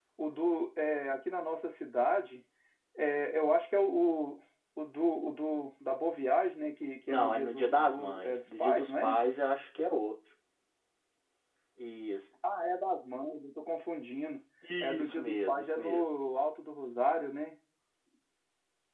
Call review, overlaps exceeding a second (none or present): present